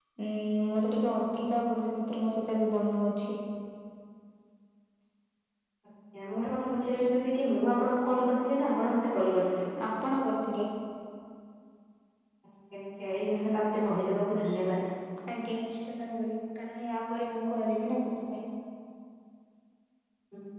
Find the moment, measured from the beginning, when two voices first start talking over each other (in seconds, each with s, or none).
none